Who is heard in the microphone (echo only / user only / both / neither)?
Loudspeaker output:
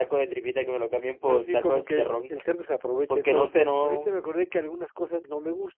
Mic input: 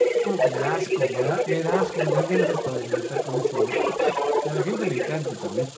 both